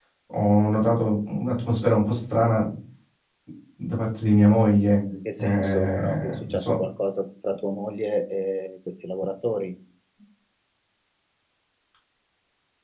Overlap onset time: 5.4 s

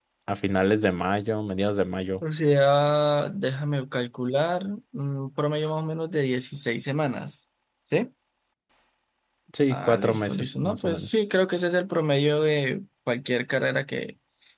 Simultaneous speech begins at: 9.7 s

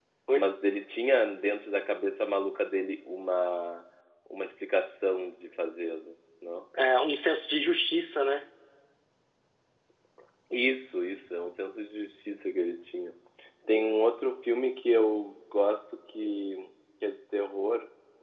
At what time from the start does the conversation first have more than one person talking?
none

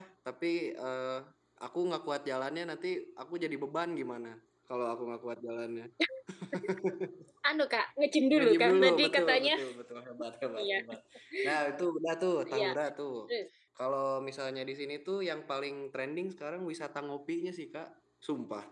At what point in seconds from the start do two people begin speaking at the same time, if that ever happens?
8.3 s

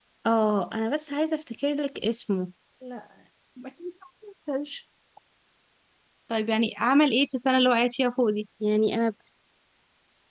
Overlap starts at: none

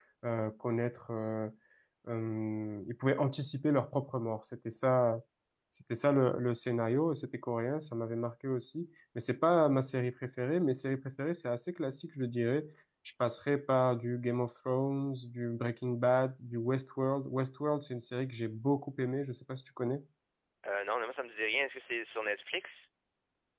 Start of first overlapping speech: none

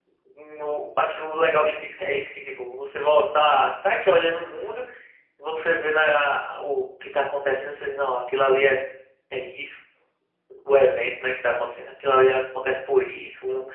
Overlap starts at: none

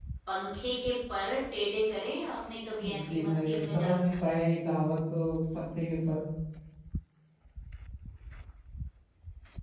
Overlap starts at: 2.8 s

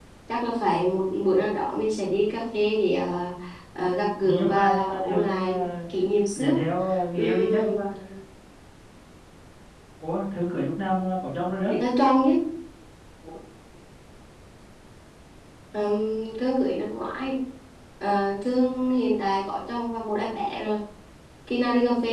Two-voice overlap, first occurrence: 4.2 s

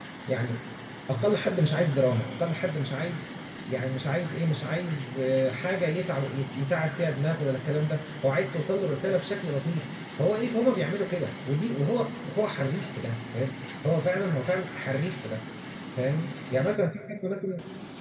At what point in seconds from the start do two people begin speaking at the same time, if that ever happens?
none

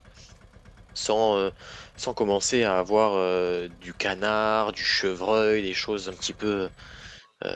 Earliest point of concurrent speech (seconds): none

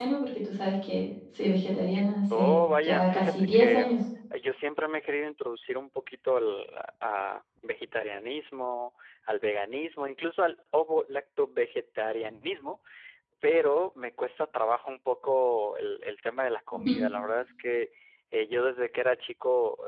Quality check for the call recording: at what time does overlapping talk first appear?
2.3 s

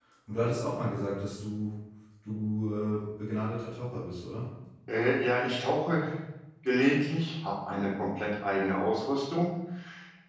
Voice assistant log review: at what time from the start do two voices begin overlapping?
none

